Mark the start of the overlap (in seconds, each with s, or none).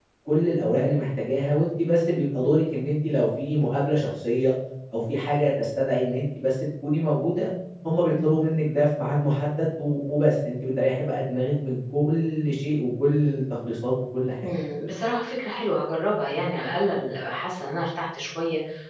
none